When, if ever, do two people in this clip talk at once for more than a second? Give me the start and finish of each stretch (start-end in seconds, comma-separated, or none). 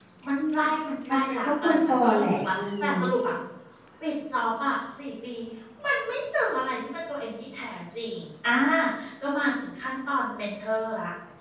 1.1-2.9